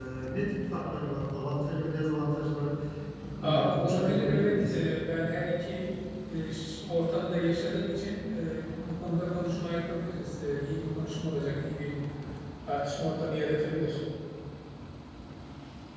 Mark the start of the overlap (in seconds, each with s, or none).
3.4 s